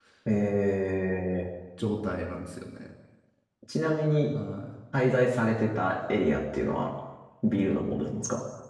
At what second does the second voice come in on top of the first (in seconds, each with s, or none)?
none